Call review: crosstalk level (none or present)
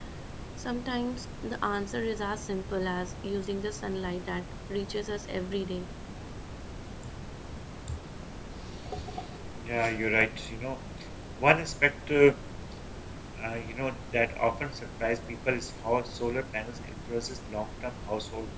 none